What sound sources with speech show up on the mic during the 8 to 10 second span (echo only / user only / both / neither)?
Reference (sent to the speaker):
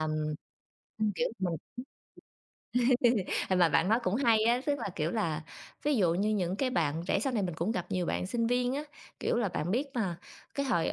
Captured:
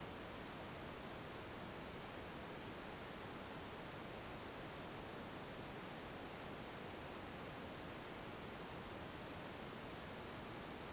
neither